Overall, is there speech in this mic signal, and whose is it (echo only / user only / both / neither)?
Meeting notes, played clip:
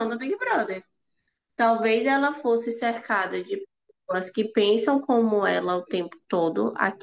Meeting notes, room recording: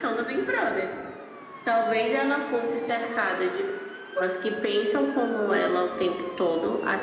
echo only